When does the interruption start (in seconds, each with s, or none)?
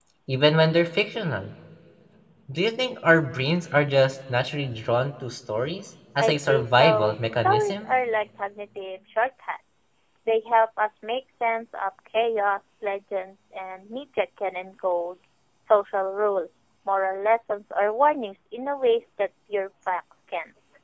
6.2 s